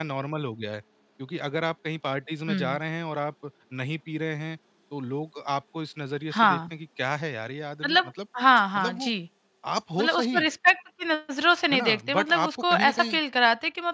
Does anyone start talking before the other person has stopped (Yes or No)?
Yes